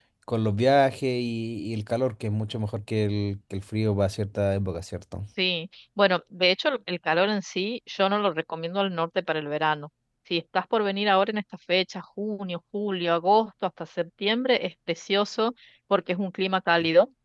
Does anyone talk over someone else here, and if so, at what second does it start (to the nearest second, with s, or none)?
none